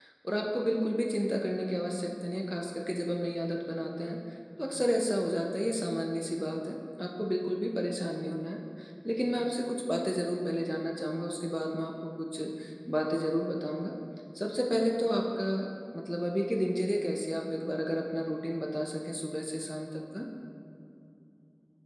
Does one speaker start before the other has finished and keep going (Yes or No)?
No